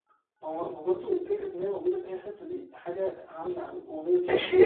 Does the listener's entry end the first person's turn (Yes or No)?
Yes